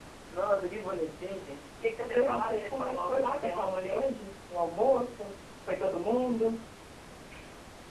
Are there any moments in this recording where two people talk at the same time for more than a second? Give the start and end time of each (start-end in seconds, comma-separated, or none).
2.0-4.0